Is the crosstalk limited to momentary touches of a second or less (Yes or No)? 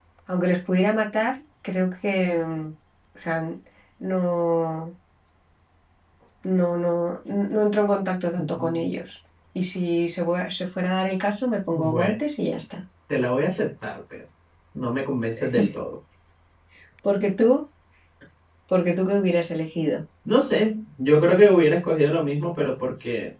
Yes